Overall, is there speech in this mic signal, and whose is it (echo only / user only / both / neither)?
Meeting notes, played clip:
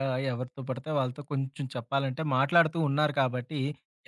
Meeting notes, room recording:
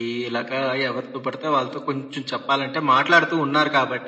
echo only